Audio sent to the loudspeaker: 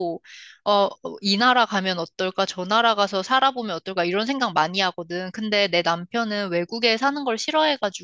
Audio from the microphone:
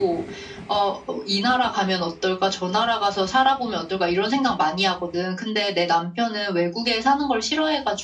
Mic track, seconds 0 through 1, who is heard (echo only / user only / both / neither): echo only